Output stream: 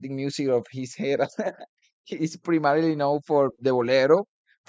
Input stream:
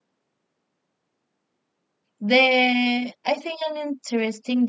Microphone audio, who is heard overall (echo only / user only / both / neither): user only